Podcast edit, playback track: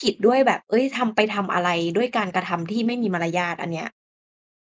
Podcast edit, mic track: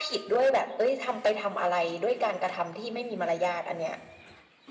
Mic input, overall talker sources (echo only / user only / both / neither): echo only